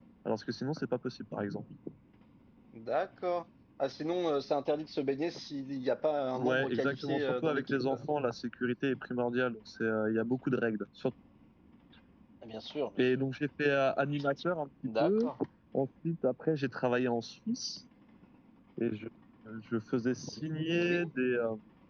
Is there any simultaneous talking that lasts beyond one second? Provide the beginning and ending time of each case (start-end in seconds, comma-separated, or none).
6.3-7.9